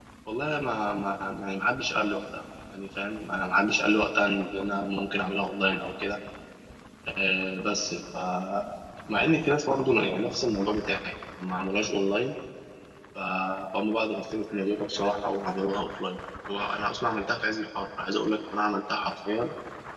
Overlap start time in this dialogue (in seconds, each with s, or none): none